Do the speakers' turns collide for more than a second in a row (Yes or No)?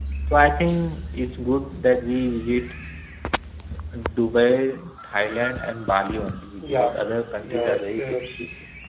Yes